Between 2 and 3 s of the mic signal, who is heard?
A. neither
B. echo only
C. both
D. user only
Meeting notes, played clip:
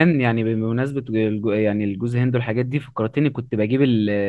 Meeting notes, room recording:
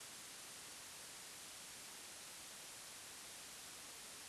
A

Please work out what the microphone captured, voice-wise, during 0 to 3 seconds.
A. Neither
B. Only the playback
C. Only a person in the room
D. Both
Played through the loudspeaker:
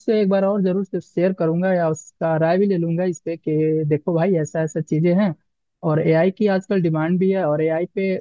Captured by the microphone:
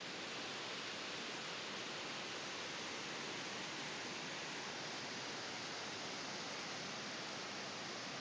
A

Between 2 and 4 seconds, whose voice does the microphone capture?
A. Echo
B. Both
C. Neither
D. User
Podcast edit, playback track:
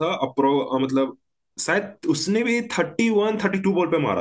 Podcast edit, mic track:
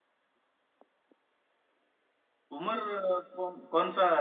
D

